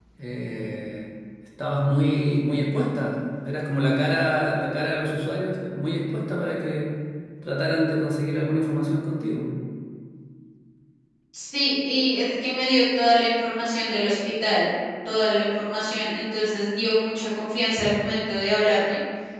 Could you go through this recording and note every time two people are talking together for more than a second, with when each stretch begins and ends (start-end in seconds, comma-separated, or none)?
none